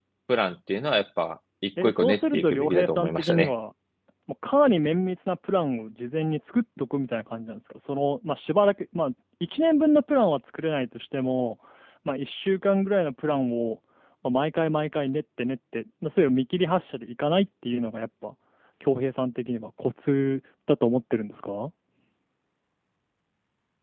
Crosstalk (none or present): present